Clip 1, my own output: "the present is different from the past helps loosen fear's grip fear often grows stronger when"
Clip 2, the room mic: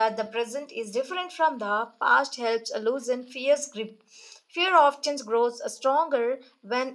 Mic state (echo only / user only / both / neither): echo only